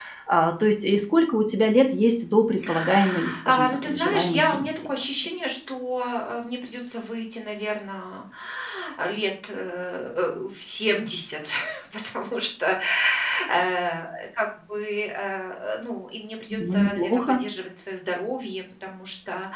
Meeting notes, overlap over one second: present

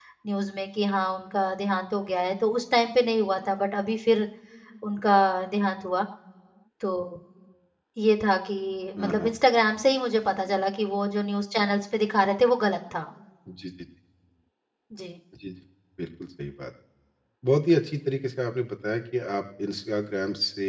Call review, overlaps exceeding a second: none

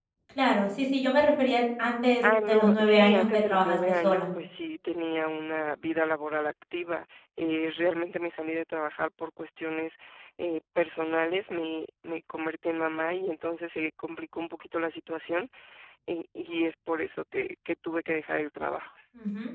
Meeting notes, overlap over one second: present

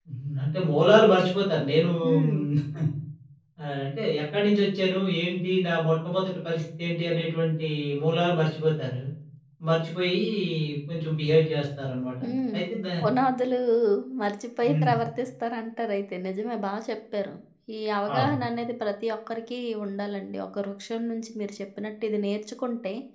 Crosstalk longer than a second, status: none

